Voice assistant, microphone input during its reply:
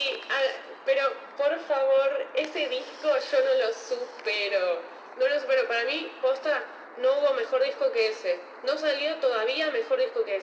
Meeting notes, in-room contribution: none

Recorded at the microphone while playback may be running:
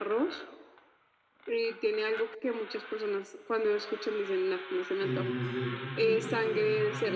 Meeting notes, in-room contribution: present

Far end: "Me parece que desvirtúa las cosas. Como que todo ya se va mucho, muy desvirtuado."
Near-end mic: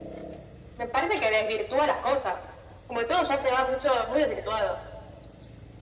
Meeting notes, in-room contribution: none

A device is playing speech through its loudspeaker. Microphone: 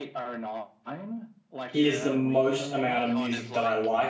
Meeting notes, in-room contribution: present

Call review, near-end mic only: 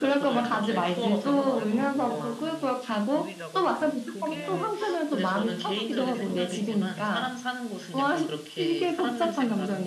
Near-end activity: present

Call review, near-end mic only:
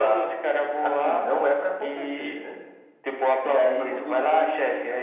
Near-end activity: none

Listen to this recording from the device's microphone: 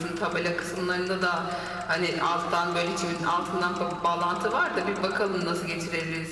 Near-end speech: none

